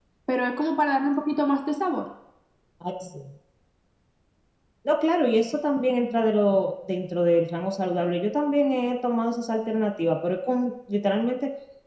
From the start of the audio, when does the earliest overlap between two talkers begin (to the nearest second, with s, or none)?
none